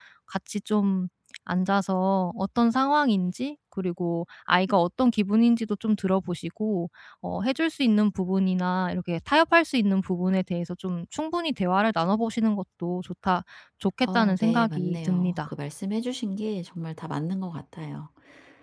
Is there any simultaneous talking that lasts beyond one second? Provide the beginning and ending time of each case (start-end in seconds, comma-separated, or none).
14.0-15.5